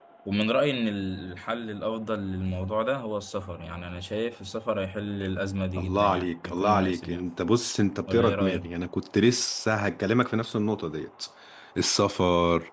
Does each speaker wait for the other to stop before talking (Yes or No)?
No